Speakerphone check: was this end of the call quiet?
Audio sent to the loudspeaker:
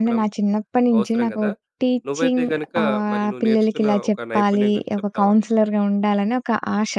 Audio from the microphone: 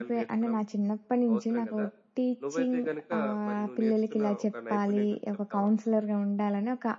Yes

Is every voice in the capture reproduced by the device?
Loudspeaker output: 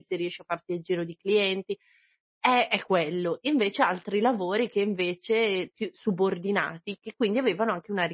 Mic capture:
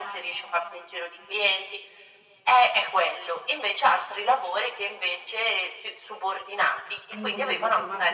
No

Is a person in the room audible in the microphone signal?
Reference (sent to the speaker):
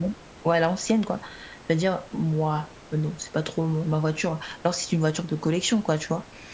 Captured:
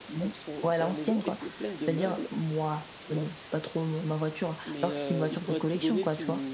Yes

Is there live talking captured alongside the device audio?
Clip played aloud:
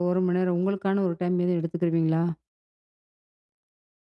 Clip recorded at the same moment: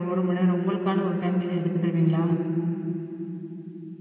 No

